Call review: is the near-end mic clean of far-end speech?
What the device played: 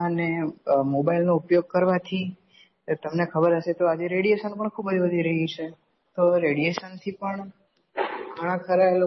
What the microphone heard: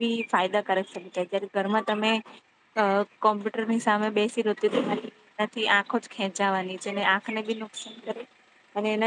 Yes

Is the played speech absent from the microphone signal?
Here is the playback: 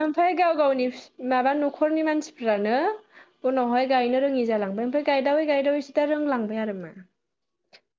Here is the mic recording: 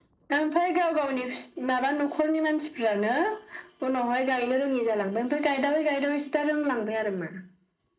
No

